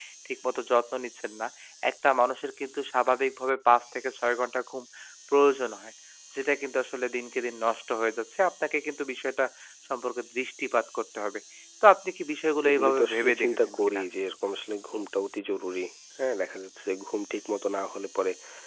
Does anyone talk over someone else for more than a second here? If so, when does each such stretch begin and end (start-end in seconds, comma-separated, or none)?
12.7-14.0